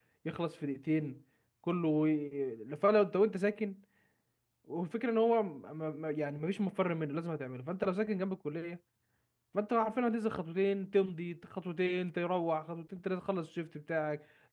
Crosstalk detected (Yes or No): No